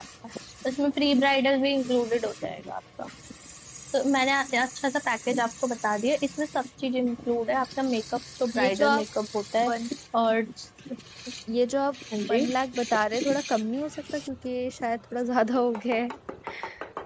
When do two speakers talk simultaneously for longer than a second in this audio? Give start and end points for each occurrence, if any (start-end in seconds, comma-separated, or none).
none